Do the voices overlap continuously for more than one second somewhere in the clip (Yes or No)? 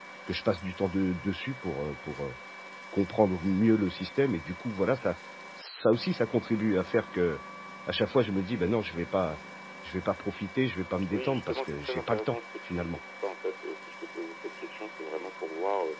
Yes